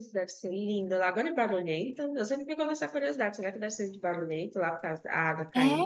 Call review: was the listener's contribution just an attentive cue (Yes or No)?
No